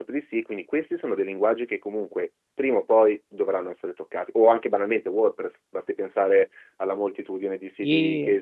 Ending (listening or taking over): listening